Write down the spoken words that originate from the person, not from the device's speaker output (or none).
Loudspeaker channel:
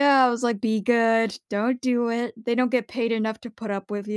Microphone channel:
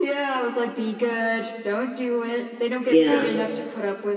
Yeah.